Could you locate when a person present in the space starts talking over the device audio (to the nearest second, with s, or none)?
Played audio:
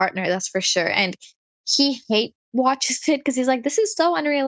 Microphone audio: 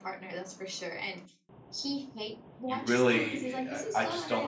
3 s